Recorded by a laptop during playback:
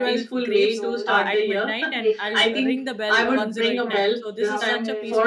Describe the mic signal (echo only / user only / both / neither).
both